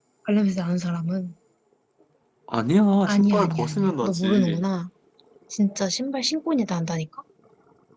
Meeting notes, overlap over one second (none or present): present